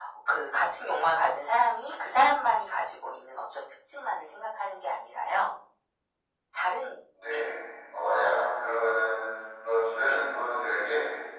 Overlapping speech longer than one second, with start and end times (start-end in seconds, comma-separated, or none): none